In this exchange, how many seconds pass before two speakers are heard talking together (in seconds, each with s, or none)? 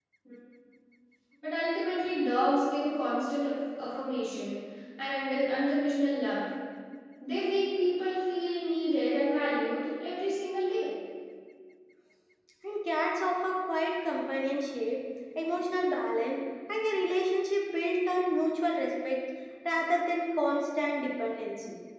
none